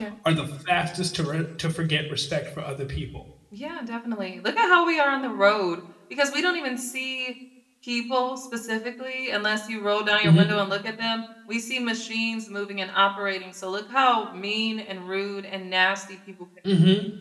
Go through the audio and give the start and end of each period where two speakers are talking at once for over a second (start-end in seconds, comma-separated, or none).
none